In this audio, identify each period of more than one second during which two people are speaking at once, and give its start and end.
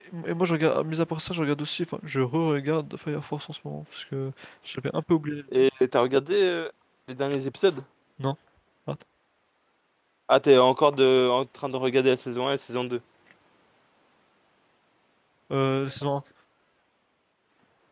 none

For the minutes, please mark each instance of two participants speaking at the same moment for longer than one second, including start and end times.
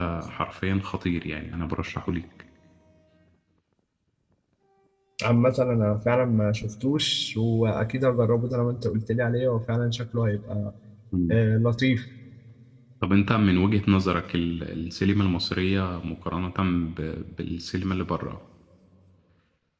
none

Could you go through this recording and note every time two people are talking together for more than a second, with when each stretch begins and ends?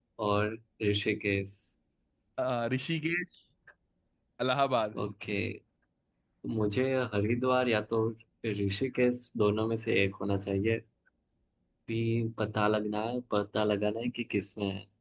none

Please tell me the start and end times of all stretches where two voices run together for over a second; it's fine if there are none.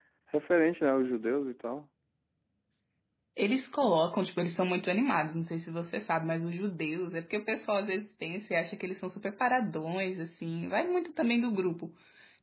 none

